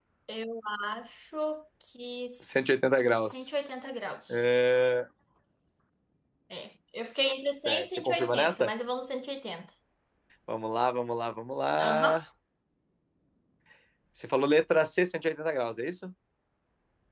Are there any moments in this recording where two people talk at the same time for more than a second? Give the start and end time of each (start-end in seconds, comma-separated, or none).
7.5-8.7